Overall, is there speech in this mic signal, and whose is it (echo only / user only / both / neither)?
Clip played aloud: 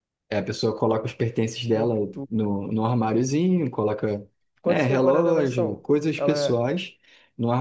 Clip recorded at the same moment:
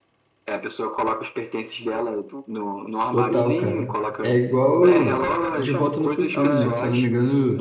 both